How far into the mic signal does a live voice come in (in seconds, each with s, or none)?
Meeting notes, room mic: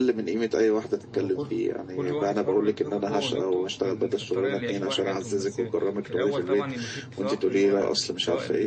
1.1 s